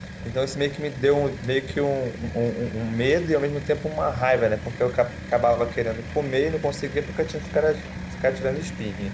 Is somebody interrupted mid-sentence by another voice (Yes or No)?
No